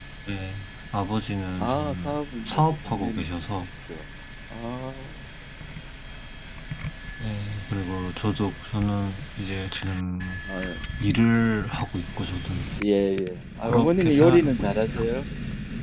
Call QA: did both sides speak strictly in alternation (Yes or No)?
No